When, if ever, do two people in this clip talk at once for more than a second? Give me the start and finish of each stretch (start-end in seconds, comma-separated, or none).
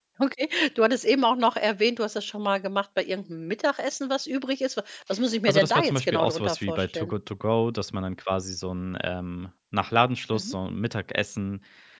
5.4-7.1